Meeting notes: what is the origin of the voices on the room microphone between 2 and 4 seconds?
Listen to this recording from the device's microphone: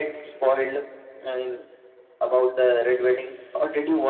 echo only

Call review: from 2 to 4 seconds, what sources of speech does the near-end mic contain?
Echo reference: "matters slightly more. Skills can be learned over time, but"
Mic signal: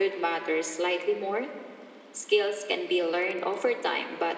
echo only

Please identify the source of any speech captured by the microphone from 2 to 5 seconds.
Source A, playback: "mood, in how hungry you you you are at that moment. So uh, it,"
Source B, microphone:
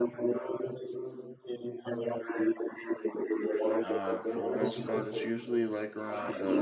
both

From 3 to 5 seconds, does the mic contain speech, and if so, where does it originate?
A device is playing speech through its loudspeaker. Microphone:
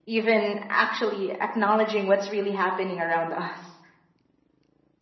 echo only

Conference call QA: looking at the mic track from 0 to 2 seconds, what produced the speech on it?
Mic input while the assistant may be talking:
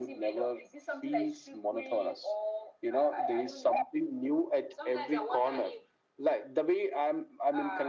echo only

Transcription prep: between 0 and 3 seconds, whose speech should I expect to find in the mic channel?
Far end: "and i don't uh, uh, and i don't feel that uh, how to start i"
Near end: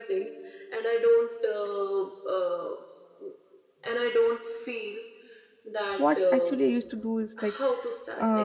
echo only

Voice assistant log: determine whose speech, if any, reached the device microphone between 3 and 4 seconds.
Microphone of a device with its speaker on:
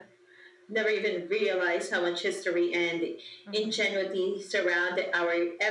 both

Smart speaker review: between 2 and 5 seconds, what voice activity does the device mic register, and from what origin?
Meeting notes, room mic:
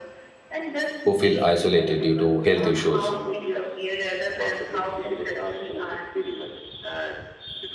both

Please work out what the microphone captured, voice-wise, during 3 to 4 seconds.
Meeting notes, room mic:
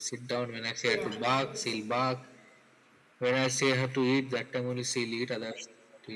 echo only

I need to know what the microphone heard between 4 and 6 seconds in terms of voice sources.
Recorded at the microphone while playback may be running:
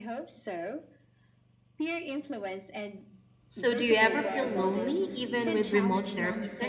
both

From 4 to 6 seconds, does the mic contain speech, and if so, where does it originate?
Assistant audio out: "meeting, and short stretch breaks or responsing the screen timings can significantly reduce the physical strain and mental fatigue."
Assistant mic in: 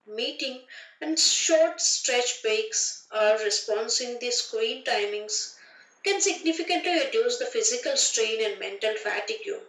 echo only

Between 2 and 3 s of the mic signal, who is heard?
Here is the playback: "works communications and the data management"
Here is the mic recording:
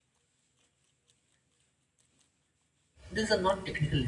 neither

